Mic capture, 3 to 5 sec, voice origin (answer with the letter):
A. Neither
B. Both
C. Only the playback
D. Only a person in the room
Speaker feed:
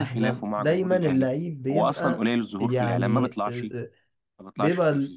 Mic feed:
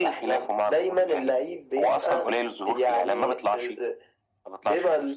C